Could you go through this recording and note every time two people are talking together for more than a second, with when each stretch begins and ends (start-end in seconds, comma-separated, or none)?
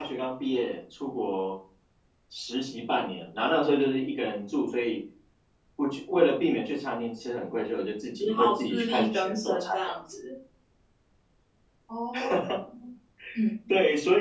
8.2-10.0